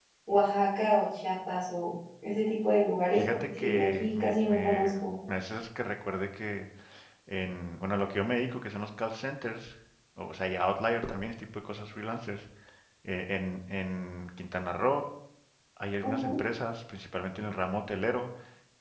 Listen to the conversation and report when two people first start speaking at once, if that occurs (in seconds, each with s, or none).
3.1 s